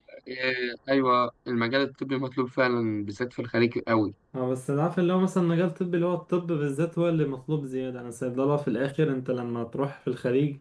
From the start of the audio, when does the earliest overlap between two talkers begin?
none

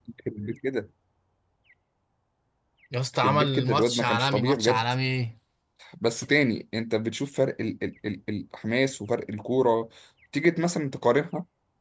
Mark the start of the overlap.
3 s

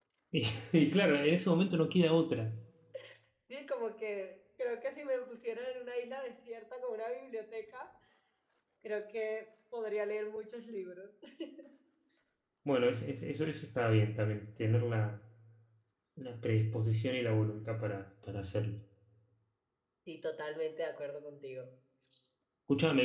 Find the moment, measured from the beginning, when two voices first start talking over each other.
none

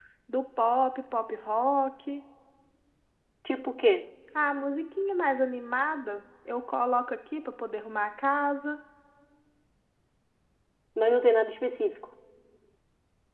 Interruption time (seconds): none

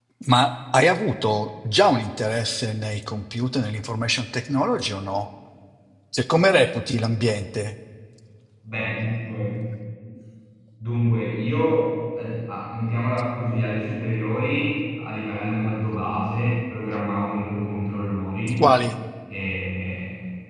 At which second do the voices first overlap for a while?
none

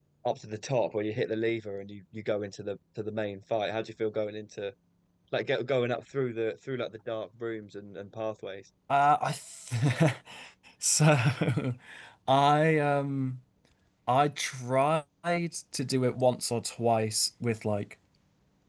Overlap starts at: none

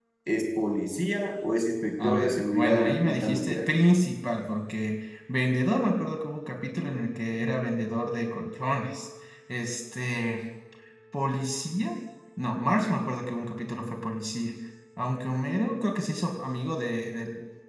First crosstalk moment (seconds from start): 2 s

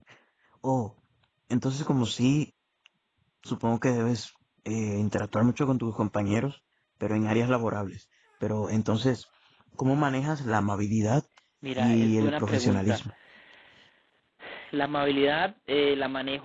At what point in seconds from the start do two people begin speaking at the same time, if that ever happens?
12 s

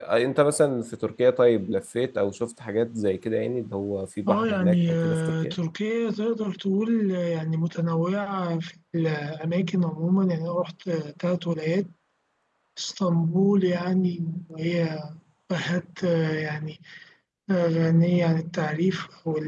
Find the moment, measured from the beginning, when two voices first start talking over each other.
4 s

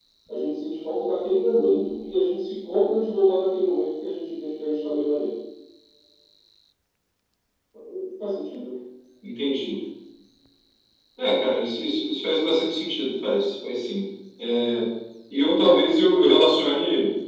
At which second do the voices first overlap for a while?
none

